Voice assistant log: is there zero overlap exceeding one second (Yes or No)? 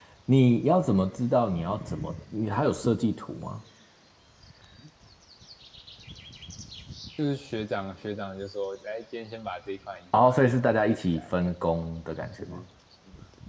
No